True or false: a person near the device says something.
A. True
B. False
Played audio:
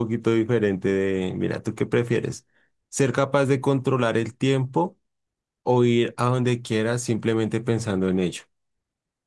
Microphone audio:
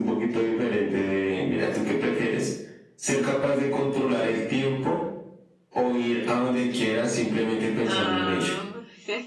A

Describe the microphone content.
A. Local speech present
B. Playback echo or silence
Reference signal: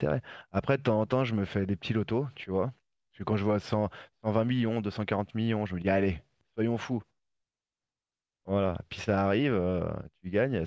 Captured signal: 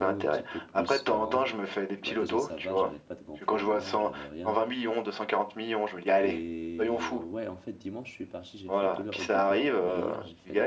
A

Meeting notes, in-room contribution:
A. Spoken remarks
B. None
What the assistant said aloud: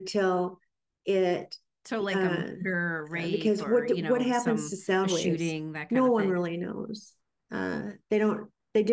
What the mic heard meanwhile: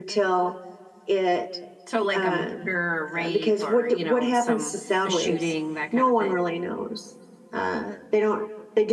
B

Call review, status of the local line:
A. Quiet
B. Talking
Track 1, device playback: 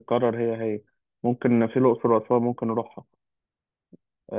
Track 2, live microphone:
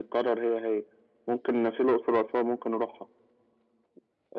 A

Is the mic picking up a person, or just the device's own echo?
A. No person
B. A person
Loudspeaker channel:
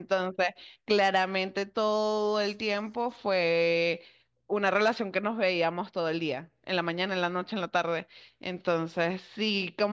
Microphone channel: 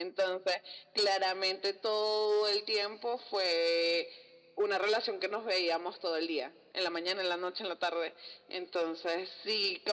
A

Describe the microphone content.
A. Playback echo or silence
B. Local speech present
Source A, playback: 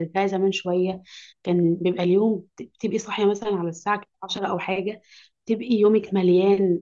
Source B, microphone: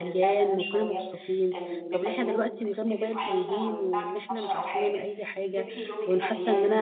B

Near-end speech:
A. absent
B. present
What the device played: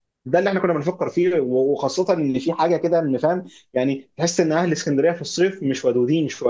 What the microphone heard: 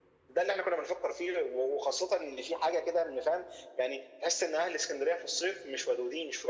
A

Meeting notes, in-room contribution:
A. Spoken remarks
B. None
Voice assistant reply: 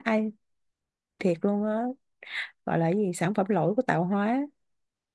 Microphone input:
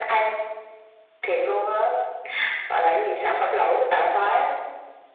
B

